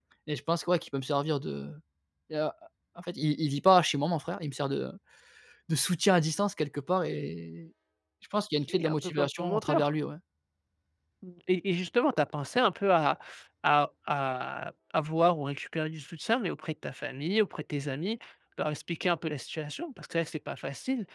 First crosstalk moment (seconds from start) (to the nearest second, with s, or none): 9 s